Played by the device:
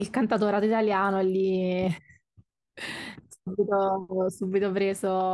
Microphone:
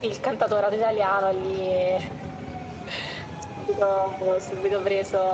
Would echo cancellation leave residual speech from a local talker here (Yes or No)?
No